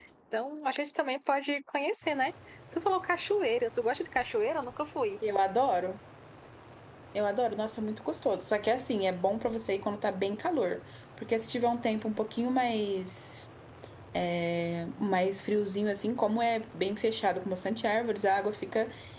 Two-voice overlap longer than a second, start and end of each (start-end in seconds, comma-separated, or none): none